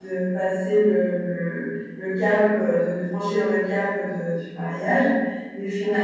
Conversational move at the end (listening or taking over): listening